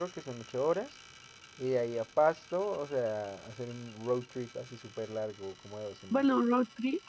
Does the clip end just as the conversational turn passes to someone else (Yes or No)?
Yes